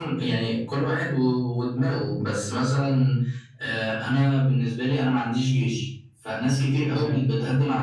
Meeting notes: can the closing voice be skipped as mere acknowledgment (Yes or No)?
Yes